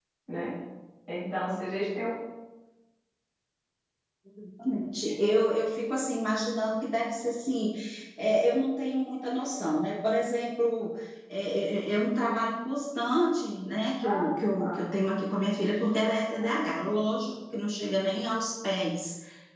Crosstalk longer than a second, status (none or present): none